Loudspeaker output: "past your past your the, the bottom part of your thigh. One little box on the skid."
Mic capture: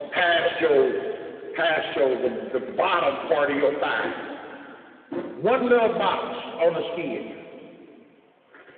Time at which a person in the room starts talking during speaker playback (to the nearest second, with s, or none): none